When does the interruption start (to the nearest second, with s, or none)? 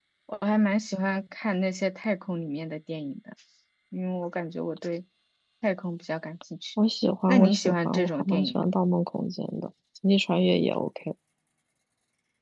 7 s